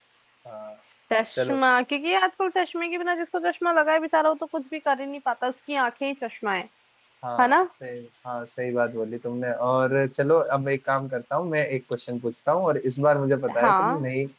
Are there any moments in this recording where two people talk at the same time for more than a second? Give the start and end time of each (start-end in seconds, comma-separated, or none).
none